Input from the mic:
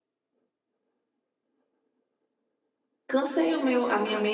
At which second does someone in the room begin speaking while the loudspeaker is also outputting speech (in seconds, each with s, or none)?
3.1 s